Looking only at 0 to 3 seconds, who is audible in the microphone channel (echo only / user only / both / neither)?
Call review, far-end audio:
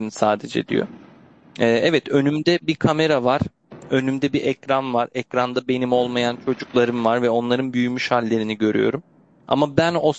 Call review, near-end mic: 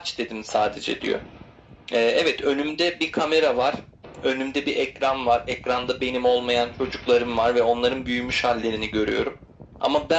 echo only